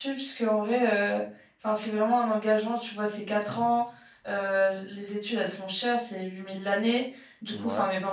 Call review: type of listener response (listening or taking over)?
listening